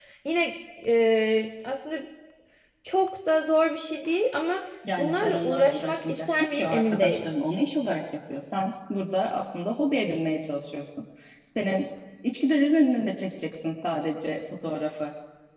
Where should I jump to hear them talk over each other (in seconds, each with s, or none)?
4.8 s